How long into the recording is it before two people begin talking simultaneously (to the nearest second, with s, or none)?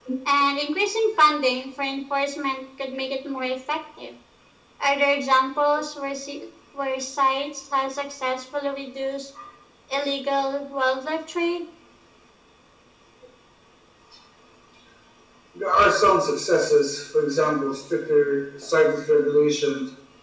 none